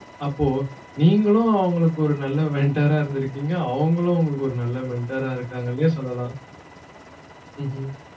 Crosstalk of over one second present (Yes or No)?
No